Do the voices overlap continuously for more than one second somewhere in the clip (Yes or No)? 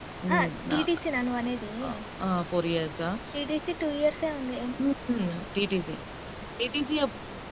No